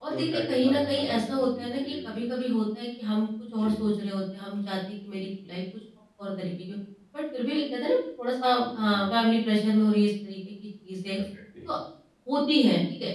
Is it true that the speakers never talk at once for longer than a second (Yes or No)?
No